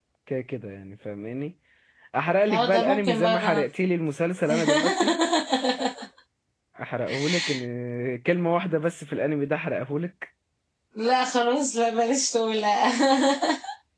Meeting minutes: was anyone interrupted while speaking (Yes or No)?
Yes